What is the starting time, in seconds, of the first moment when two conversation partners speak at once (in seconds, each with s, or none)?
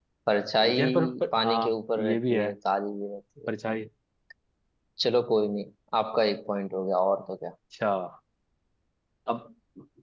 0.8 s